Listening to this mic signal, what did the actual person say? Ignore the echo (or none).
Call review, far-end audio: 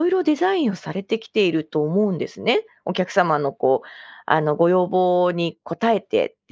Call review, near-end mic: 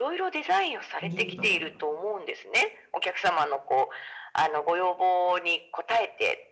踏んじゃってた。